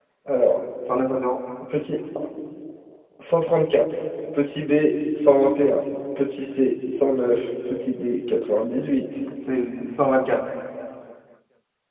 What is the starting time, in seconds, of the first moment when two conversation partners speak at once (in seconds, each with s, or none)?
none